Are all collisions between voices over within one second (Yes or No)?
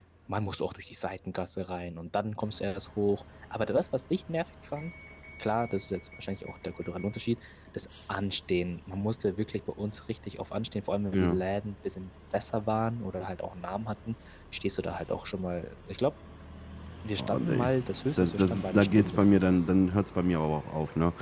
No